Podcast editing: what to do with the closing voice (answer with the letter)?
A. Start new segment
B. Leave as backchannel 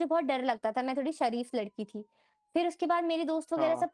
B